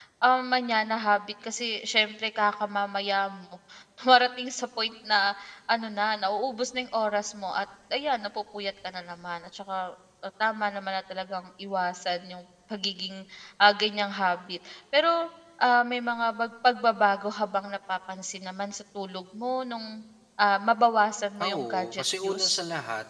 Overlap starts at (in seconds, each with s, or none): 21.4 s